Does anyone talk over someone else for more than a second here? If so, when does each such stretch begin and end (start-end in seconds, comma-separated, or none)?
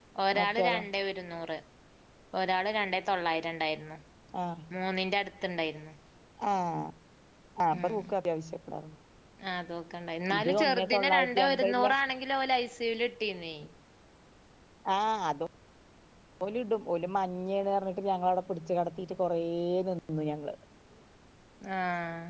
10.4-11.9